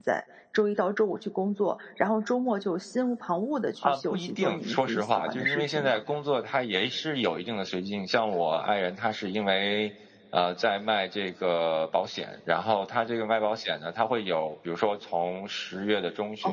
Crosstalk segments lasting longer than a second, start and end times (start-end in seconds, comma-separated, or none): 3.8-6.0